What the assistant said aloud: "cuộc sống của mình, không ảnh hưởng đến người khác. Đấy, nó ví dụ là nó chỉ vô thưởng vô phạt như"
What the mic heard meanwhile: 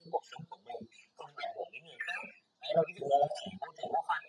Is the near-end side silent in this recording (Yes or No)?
Yes